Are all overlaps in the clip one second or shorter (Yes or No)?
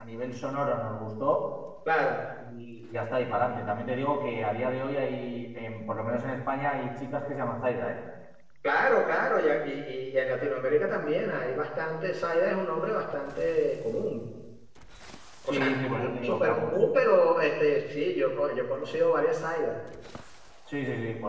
No